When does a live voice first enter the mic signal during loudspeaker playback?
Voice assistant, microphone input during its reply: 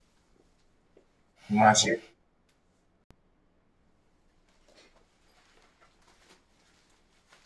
1.5 s

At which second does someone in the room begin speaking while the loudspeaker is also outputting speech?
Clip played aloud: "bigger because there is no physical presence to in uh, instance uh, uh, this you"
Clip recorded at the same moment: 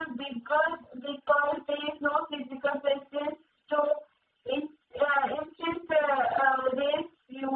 none

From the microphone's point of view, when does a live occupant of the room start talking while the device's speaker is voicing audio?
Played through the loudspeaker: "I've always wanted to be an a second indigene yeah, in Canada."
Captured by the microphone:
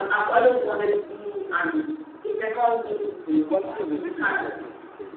3.4 s

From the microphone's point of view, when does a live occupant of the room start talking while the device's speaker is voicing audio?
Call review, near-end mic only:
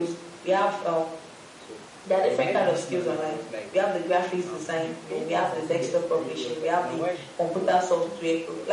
1.6 s

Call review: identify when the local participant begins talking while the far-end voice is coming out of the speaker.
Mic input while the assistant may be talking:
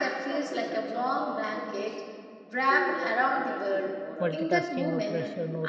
4.2 s

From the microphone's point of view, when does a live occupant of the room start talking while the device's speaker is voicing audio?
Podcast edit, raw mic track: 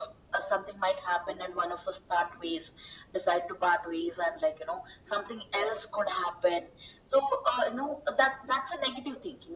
none

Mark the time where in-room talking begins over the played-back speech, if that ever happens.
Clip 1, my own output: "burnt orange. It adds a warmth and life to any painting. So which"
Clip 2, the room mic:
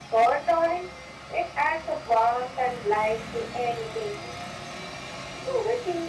none

